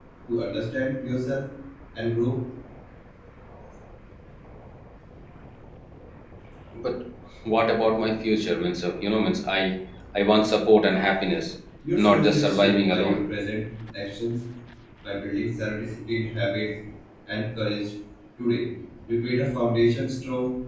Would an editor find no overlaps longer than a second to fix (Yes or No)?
No